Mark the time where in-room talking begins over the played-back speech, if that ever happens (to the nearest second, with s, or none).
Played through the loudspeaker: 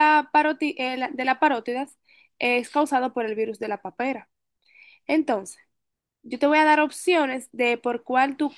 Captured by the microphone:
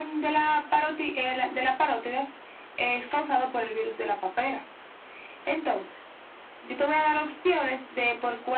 none